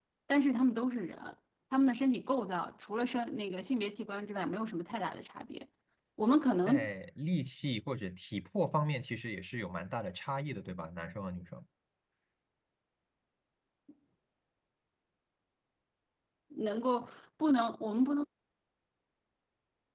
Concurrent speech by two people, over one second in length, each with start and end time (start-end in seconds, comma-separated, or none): none